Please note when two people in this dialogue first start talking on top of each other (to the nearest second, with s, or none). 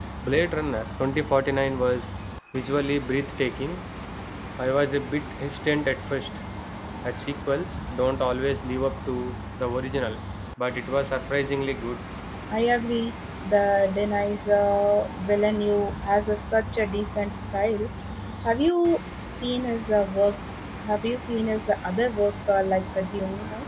none